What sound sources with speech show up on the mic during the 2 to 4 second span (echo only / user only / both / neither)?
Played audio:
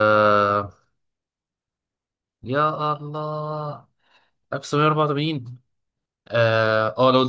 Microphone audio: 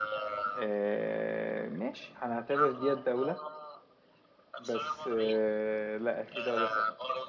both